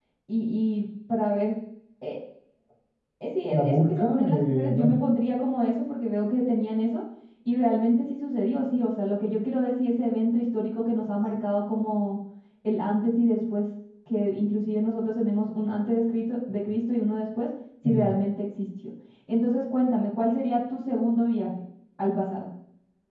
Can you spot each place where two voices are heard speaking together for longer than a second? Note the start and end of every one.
3.5-4.9

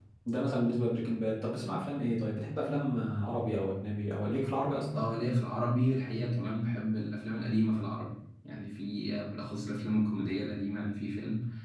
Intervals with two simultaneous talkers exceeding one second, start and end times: none

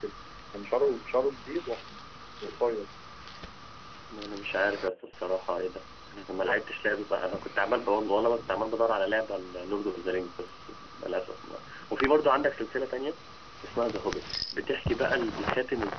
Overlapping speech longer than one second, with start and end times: none

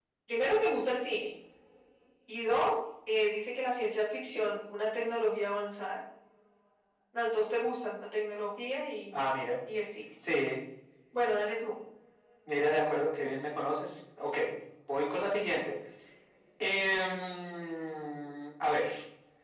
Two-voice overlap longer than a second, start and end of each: none

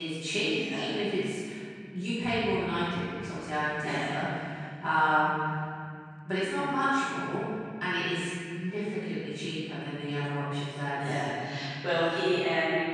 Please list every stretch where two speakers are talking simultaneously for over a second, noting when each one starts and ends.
none

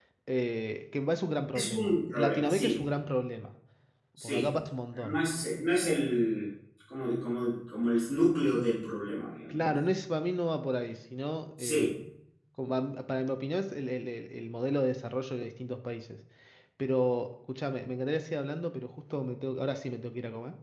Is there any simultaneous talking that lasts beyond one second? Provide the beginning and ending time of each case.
1.6-2.8

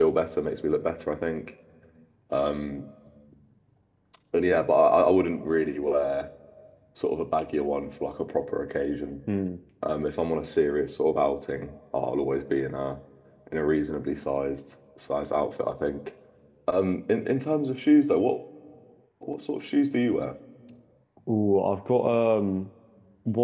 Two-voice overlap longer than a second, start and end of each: none

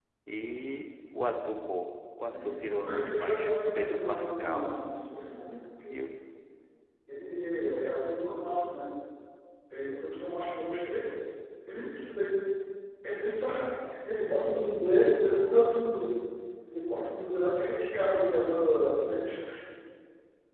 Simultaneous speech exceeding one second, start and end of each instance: 2.2-4.7

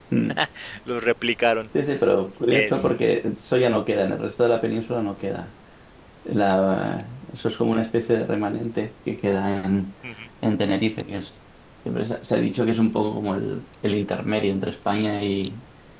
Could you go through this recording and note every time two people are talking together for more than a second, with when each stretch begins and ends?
none

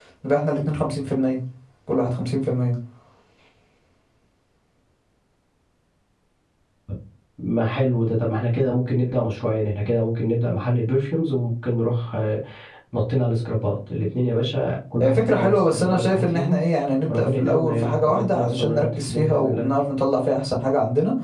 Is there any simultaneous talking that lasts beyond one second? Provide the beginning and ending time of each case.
15.0-16.6, 17.1-19.7

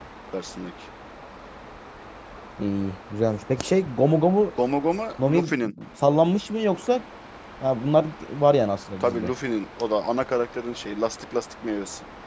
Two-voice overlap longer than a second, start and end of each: none

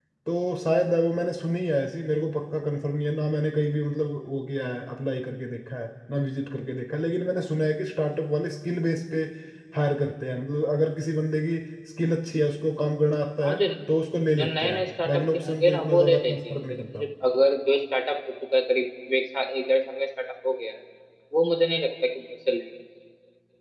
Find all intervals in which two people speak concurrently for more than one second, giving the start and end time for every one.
14.4-17.0

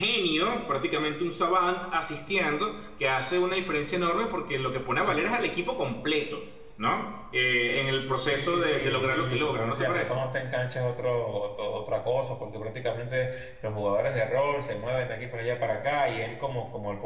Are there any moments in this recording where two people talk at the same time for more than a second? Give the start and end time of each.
8.2-10.2

